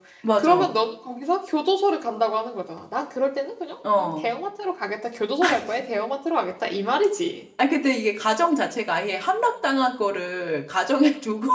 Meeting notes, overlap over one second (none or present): none